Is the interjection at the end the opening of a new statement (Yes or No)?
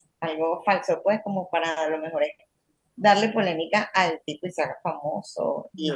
No